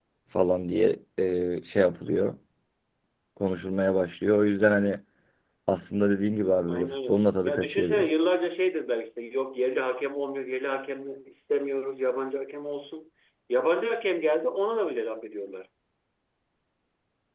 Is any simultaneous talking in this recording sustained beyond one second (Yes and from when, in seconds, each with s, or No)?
Yes, from 6.7 s